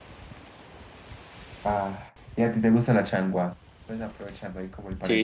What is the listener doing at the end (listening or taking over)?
taking over